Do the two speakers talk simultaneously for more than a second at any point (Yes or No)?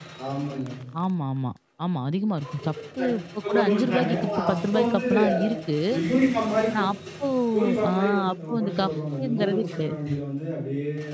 Yes